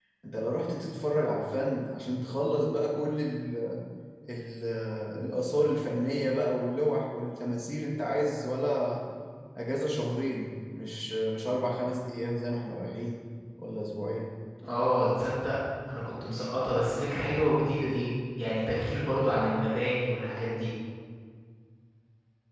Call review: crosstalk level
none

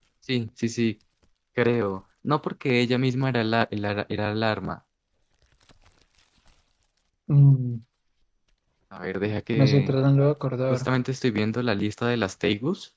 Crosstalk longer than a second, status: none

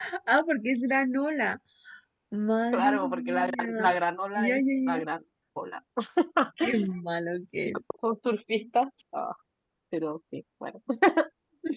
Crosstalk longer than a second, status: present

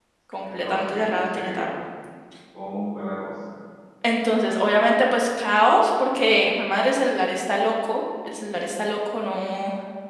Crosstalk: present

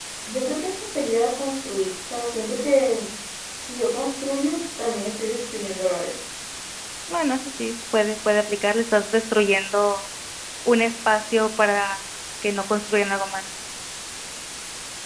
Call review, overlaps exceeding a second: none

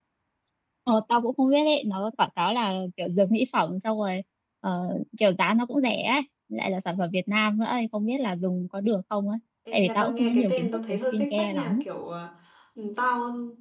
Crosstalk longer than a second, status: present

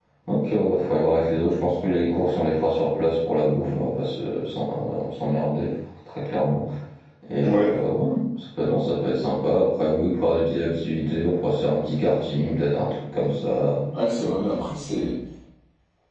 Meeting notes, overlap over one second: none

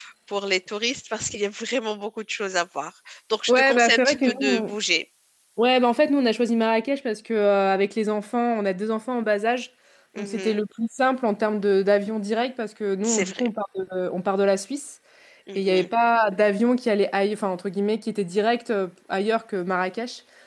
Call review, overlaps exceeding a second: present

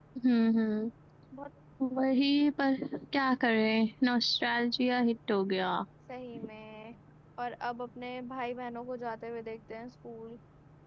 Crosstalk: none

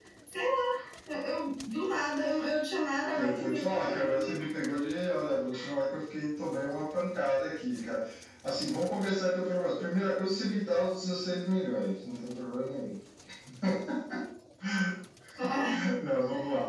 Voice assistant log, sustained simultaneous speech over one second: present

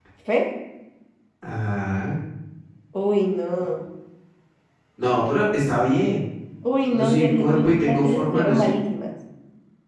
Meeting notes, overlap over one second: present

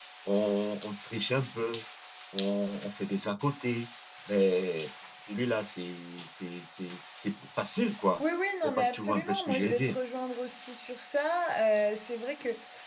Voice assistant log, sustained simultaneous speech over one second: present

